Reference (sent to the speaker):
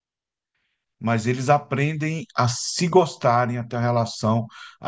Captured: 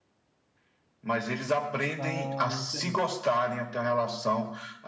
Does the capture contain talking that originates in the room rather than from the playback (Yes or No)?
Yes